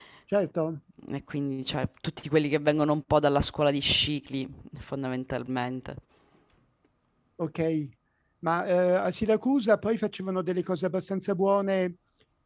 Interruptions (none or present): none